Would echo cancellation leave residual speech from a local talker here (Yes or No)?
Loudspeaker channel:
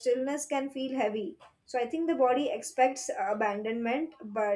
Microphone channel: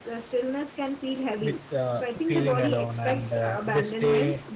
Yes